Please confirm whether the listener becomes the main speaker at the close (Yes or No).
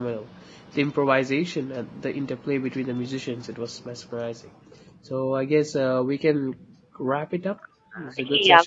Yes